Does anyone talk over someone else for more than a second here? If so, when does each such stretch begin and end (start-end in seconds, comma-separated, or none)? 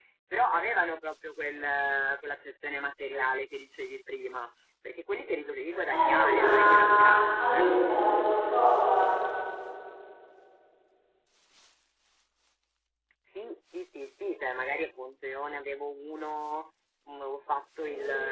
5.9-7.8